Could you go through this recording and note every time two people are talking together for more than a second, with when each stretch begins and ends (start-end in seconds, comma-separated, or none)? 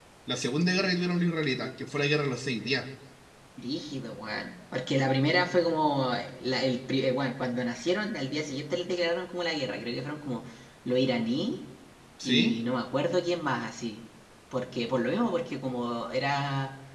none